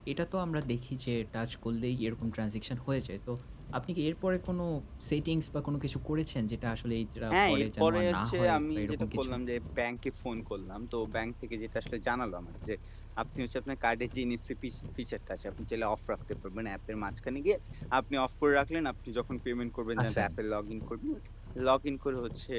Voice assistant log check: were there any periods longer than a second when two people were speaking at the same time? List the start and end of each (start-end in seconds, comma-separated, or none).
7.3-9.3